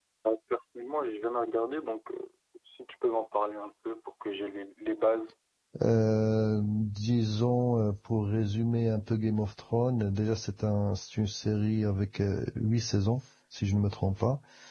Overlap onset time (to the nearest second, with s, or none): none